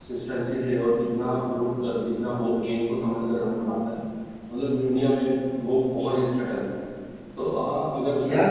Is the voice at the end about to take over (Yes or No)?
No